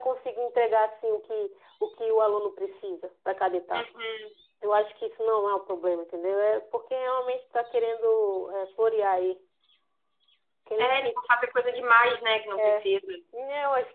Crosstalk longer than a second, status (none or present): none